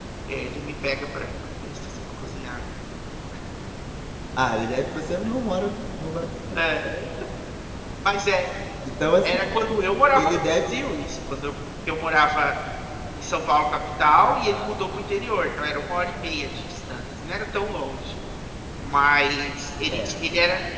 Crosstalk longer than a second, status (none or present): none